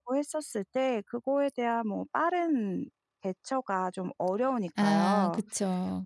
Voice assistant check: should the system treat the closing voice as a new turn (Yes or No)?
Yes